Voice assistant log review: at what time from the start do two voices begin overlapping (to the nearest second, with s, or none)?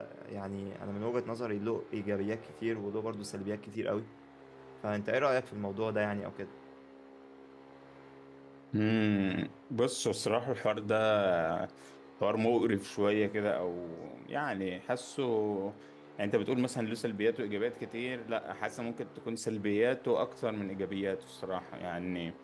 none